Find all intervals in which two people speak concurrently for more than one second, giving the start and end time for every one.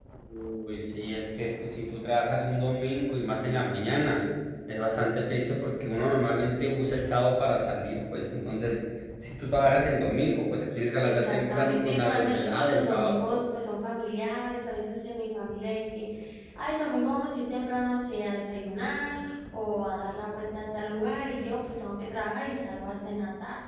11.0-13.4

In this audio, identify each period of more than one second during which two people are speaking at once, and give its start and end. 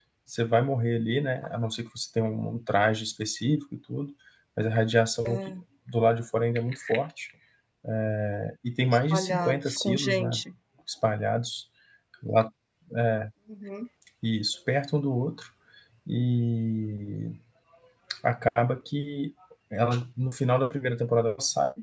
9.1-10.4

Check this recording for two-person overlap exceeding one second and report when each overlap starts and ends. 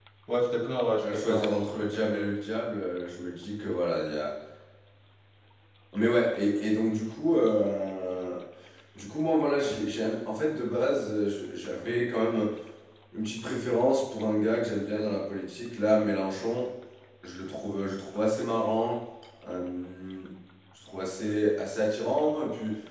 1.0-2.4

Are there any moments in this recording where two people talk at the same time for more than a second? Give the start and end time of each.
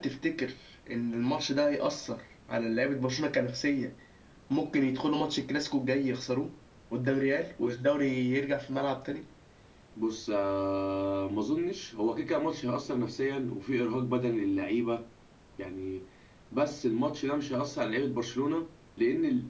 none

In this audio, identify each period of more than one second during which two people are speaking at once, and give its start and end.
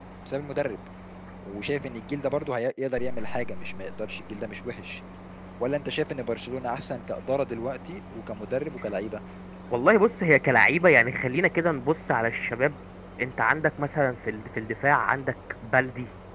none

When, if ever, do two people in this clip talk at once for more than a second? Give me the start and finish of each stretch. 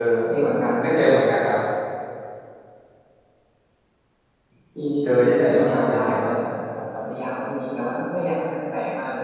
5.0-6.4

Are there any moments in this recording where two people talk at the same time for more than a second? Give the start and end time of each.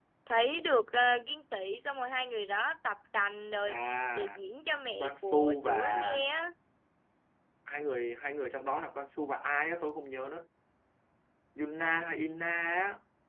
5.0-6.3

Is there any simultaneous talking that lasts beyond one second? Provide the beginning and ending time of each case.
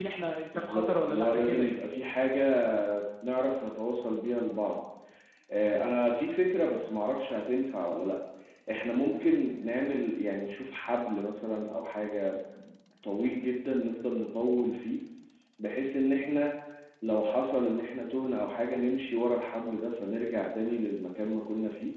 0.6-1.8

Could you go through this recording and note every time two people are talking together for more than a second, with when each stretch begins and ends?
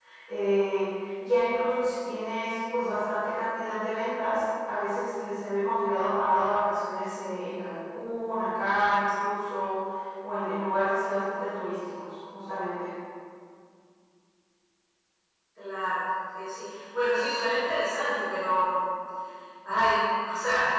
none

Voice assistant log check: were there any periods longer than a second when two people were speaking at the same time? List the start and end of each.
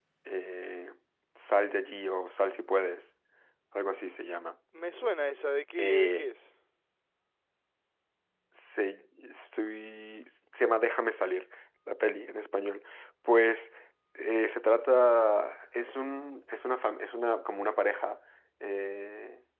none

